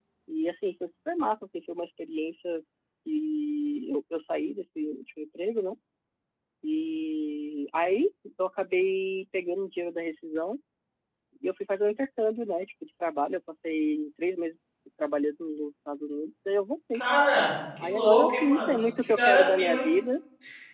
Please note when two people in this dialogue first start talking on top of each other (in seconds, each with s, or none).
17.8 s